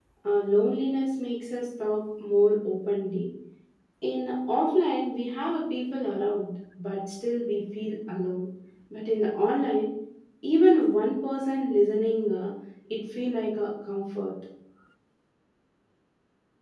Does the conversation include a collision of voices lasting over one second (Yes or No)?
No